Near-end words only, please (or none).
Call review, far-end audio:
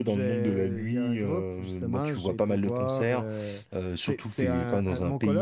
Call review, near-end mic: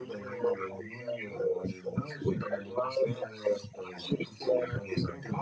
none